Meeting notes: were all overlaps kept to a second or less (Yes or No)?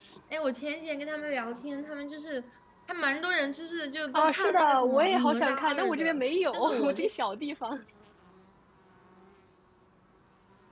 No